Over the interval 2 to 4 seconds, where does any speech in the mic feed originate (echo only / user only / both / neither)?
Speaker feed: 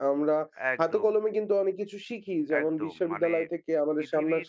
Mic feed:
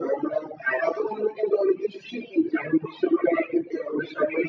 echo only